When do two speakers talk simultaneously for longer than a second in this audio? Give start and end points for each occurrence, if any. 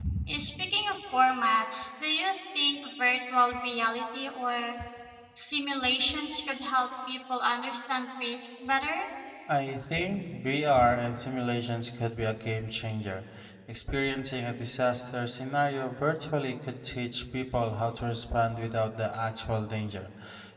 none

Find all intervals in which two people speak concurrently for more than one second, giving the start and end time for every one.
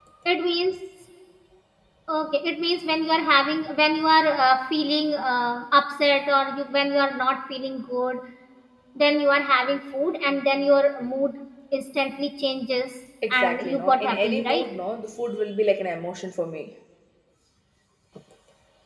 13.3-14.6

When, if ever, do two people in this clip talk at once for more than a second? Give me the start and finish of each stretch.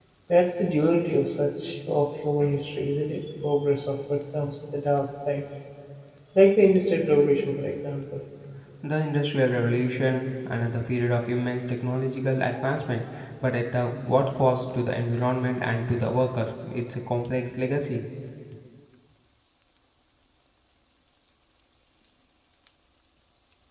none

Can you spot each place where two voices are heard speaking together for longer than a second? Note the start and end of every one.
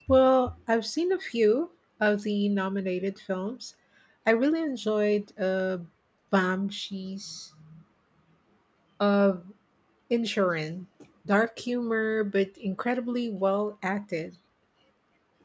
none

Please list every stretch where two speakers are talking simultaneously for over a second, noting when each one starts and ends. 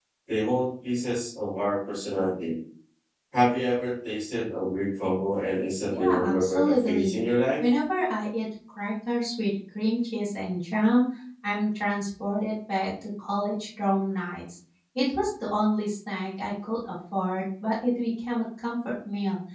5.9-7.2

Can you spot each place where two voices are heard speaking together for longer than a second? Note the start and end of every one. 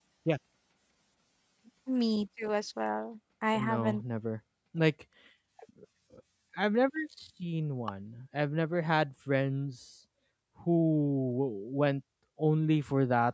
none

